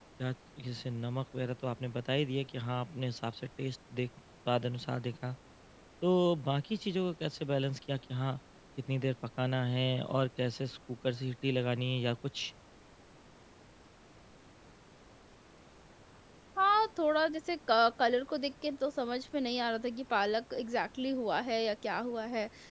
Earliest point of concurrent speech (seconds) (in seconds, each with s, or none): none